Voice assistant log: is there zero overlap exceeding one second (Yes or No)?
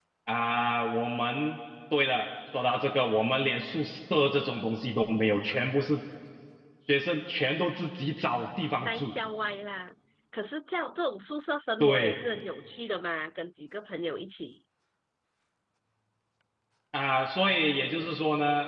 Yes